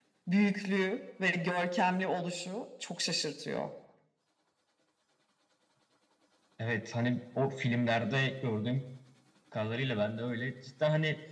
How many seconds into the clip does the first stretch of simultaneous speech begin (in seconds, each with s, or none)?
none